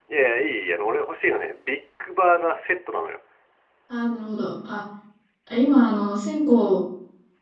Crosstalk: none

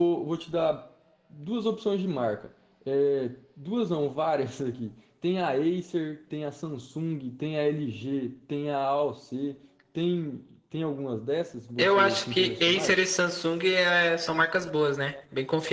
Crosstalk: present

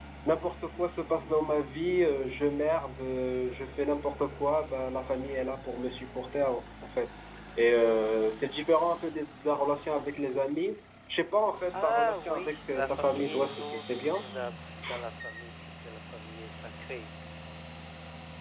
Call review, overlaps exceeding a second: present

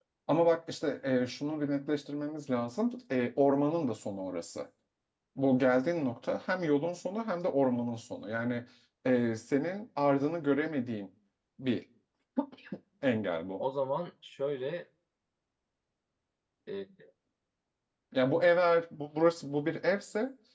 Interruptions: none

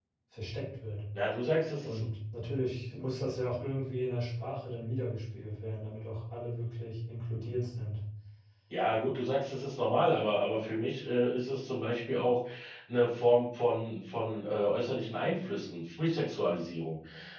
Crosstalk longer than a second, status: none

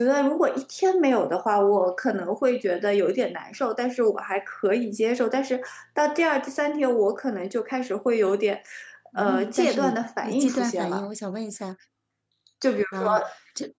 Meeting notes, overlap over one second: present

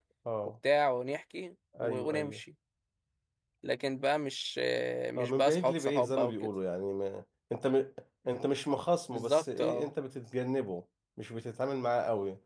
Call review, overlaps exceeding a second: present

